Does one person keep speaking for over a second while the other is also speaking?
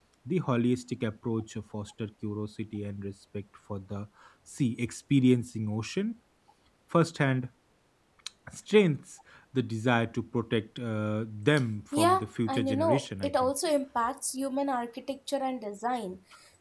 Yes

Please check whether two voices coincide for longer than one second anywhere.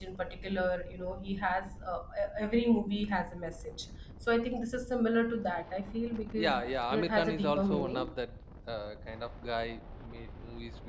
Yes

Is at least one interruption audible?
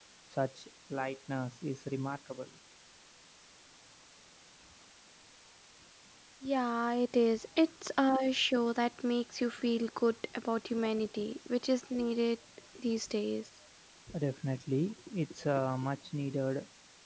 No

